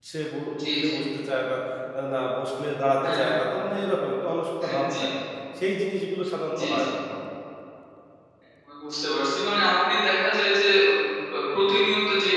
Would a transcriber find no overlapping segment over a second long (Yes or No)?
Yes